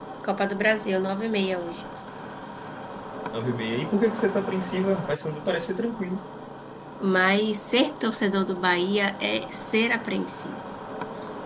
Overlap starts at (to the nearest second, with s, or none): none